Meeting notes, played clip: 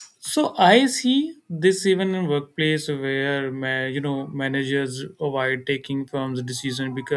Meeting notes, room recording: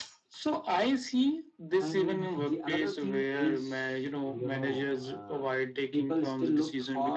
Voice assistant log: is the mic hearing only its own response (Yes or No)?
No